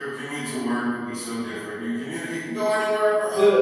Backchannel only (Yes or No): No